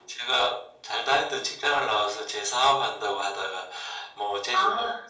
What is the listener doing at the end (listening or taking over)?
listening